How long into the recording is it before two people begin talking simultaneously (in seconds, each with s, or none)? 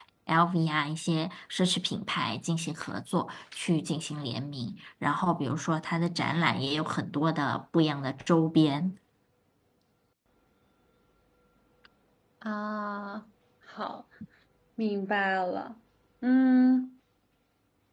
none